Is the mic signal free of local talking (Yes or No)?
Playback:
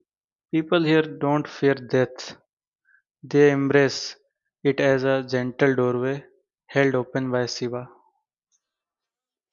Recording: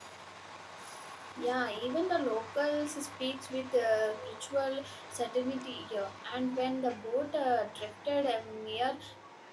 No